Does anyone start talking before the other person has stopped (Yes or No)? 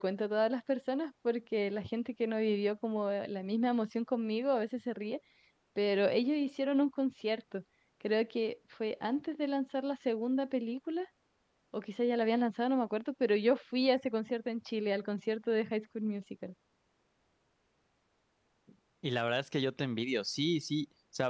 No